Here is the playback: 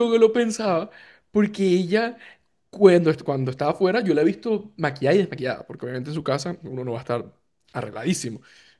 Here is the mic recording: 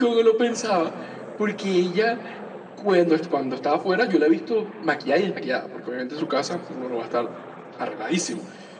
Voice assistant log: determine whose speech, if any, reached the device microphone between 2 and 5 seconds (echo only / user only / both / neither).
echo only